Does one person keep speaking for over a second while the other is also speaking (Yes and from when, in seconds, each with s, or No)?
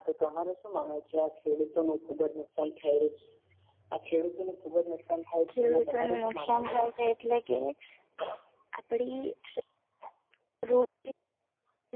Yes, from 5.5 s